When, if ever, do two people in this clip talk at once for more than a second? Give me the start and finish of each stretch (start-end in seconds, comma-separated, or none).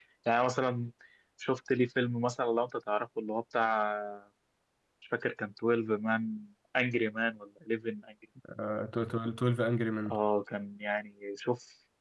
none